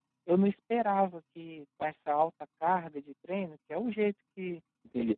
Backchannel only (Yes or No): No